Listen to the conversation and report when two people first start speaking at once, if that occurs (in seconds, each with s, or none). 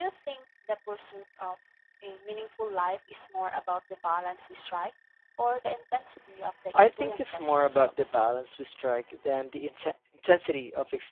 6.7 s